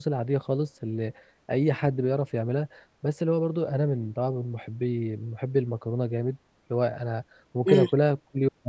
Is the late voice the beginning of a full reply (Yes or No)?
No